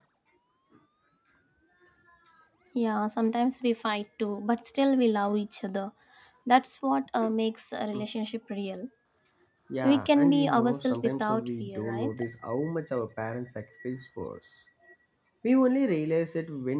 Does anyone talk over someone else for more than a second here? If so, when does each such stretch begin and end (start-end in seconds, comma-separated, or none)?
9.8-12.1